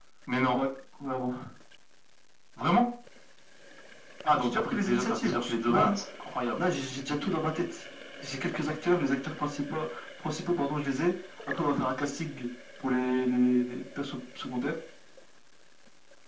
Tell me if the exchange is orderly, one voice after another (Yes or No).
No